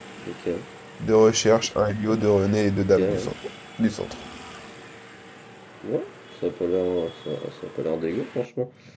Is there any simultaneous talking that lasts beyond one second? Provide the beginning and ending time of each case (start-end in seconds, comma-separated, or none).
none